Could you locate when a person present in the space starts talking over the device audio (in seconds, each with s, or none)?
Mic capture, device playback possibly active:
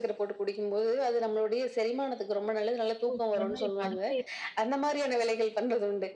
3.1 s